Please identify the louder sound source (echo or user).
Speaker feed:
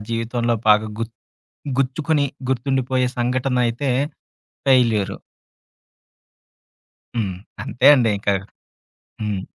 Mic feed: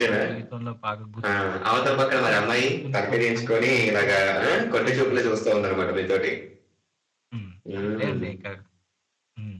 user